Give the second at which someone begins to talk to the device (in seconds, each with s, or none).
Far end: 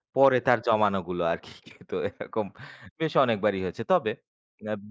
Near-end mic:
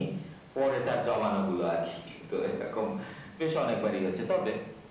none